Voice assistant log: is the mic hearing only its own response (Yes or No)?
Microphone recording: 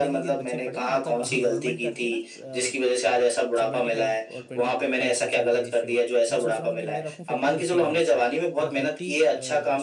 No